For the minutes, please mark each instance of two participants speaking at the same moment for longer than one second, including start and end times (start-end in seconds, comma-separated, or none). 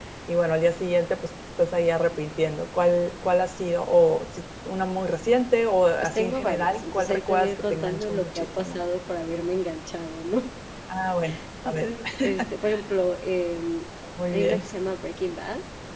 6.0-8.8